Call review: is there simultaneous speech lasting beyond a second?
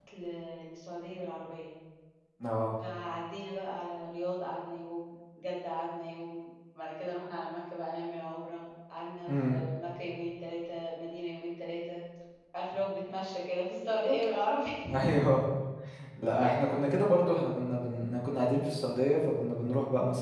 No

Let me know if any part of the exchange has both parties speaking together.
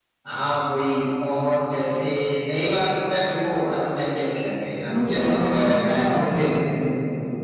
Yes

